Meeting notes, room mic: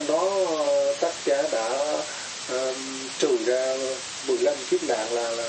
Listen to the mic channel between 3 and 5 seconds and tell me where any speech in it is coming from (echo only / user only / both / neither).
echo only